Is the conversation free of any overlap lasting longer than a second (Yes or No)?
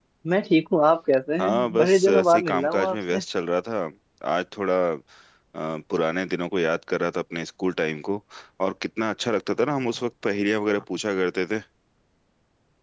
No